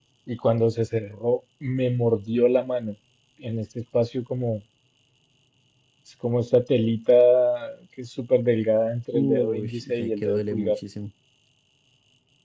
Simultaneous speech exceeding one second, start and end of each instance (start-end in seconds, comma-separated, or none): 9.1-10.8